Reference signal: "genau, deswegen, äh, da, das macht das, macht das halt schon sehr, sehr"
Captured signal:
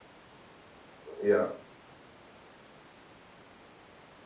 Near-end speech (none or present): present